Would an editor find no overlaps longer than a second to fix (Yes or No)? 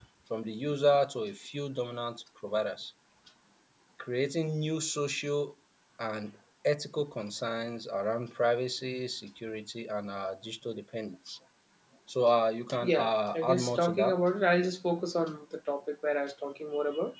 No